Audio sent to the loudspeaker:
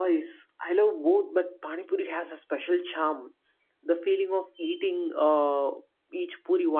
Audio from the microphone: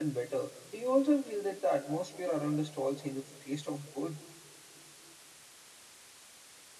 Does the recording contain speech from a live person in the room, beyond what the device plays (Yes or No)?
Yes